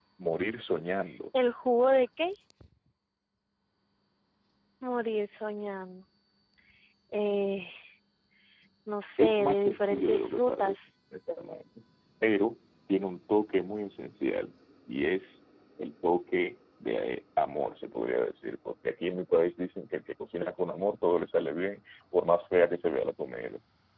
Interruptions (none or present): present